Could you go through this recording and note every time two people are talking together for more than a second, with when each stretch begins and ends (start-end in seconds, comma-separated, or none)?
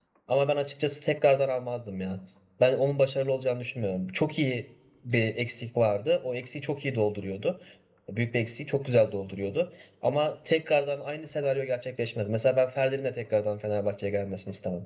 none